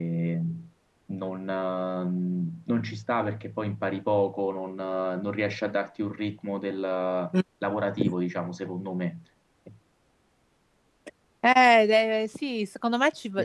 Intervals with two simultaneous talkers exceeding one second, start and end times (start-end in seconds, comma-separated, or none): none